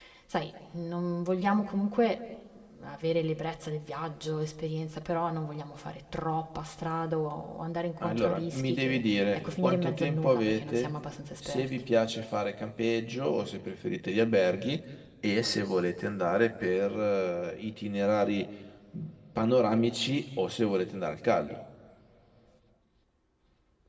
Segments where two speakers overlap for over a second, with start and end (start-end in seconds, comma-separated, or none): 8.0-10.9